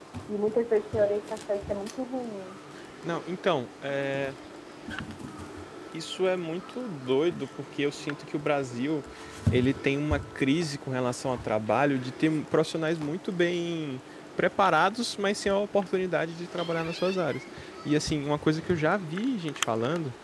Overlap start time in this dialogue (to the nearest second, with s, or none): none